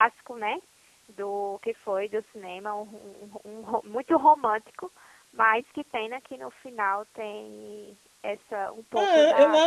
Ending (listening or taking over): taking over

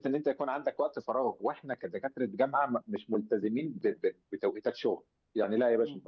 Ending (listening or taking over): listening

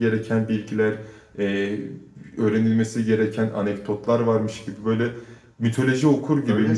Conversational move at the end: taking over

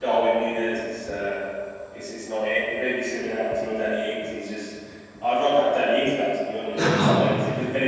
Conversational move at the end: listening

